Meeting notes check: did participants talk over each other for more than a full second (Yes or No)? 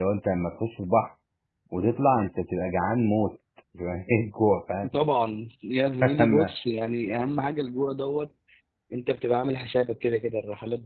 No